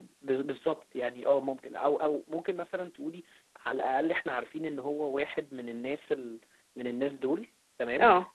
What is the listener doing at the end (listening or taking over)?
listening